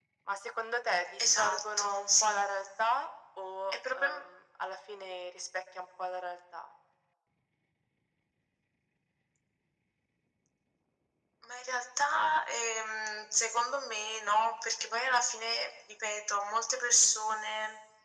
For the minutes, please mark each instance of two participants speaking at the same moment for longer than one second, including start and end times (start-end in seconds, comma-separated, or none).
1.2-2.5